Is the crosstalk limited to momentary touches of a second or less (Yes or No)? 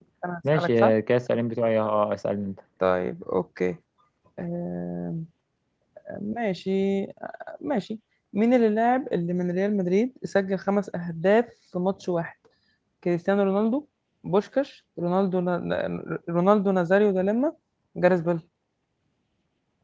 Yes